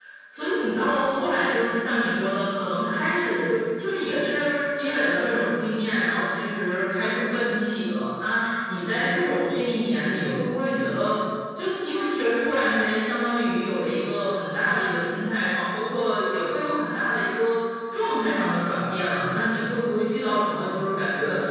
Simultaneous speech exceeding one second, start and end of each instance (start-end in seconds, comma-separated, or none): none